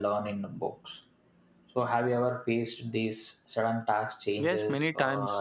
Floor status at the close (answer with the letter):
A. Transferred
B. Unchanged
A